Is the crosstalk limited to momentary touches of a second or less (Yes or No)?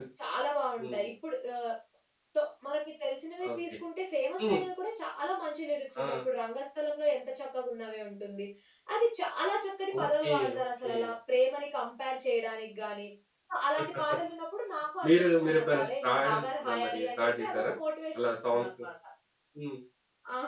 No